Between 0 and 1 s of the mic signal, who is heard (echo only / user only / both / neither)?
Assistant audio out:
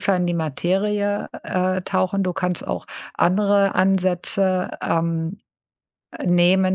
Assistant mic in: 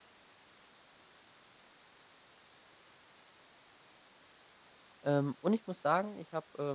neither